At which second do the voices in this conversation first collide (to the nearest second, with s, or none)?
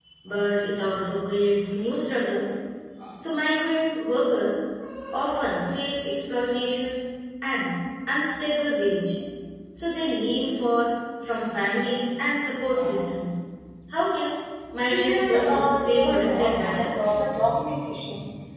15 s